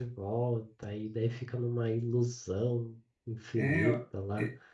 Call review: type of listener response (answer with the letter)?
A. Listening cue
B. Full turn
B